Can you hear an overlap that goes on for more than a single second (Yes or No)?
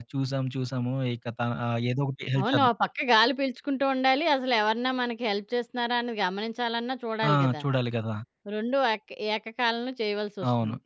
No